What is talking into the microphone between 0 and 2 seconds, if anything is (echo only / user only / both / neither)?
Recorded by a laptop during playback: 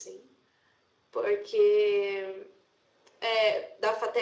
echo only